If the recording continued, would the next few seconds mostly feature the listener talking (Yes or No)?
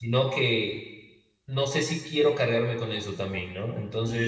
Yes